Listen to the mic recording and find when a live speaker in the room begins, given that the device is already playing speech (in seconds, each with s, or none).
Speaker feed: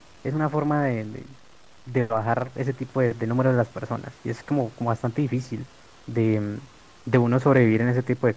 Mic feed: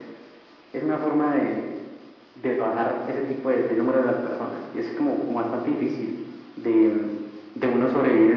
none